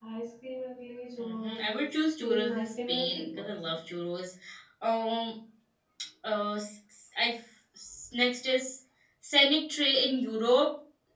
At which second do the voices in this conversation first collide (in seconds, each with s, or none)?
1.2 s